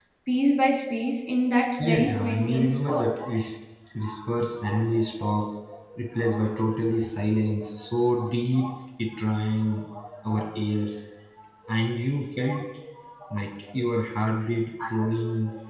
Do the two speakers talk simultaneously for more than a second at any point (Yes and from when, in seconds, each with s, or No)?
Yes, from 1.8 s